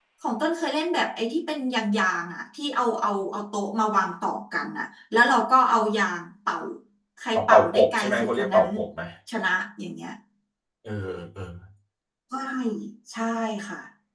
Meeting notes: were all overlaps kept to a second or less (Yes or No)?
No